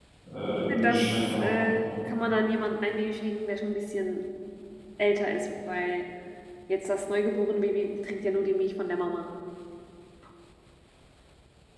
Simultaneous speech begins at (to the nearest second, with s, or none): 1 s